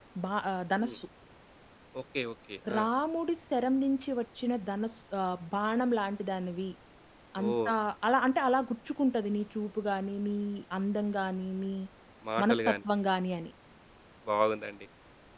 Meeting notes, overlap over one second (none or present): none